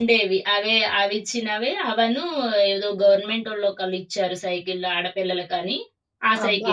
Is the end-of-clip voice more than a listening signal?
Yes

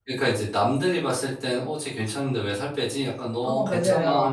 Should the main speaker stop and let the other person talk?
No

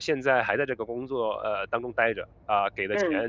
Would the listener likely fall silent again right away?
Yes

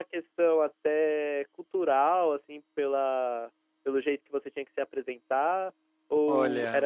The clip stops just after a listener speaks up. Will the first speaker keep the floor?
Yes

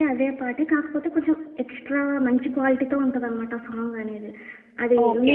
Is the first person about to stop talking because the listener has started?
Yes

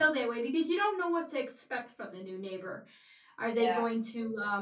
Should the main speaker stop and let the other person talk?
No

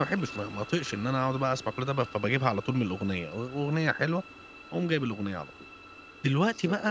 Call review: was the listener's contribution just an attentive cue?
Yes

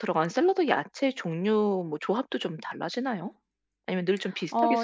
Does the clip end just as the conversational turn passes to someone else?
Yes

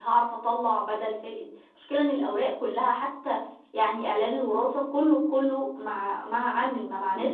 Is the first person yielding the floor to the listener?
Yes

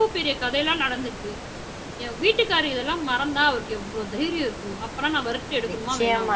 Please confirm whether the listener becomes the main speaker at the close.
Yes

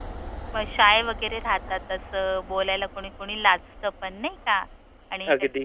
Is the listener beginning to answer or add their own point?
No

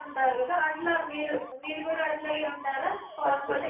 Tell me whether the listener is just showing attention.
No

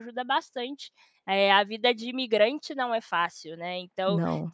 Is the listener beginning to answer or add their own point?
No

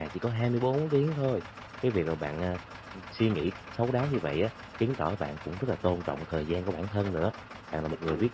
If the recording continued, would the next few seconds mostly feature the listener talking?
No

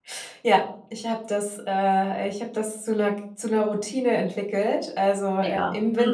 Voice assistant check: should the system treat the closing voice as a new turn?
No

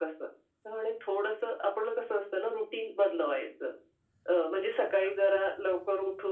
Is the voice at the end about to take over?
No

